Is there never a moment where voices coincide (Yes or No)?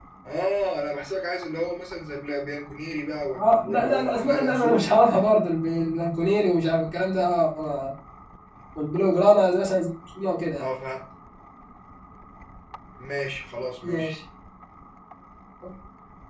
No